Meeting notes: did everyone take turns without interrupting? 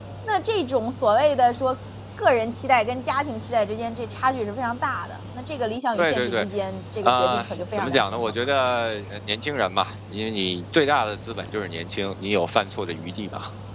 No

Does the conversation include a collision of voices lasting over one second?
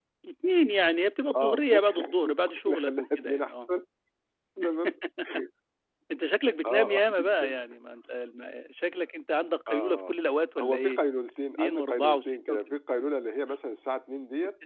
Yes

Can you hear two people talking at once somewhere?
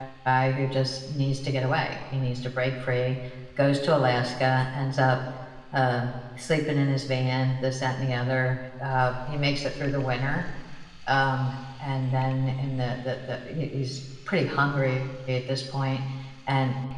No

